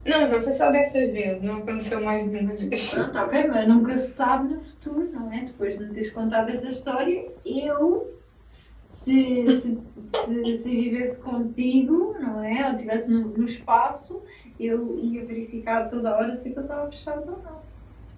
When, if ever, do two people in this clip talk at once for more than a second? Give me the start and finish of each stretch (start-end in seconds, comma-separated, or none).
none